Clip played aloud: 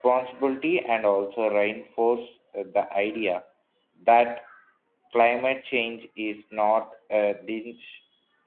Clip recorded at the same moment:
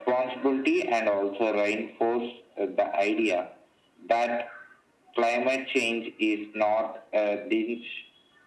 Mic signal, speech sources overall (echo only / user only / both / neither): echo only